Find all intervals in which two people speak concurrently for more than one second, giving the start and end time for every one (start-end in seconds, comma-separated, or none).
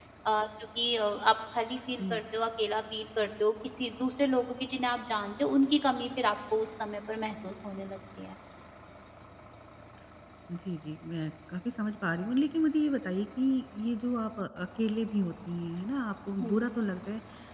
none